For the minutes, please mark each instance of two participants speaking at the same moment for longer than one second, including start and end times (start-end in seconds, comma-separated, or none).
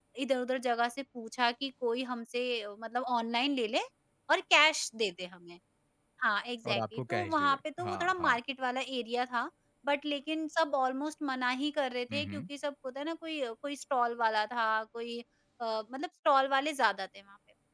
6.7-8.4